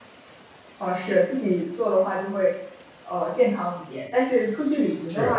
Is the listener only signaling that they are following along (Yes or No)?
Yes